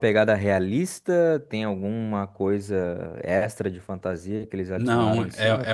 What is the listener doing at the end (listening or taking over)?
taking over